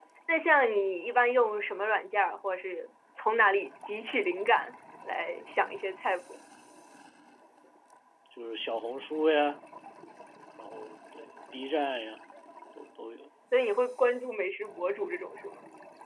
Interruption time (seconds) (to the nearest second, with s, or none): none